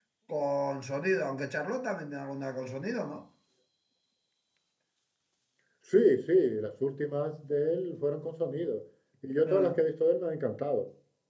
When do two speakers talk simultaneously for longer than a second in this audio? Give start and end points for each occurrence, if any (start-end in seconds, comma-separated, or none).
none